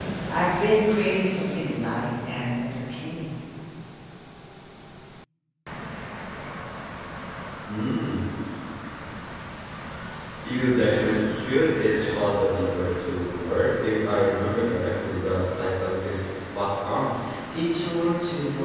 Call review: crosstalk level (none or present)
none